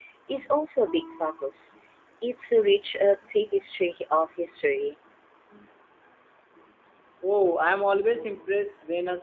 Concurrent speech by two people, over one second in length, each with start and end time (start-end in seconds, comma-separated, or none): none